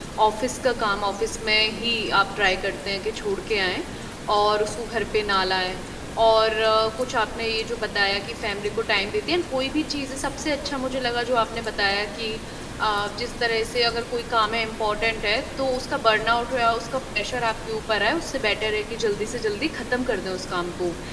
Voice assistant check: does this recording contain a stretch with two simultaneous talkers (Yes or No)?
No